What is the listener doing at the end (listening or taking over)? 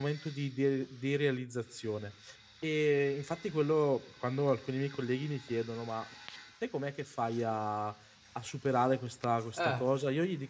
listening